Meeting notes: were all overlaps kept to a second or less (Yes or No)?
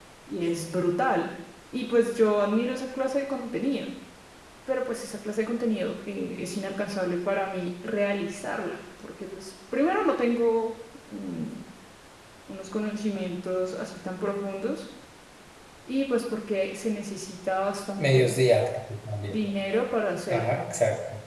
Yes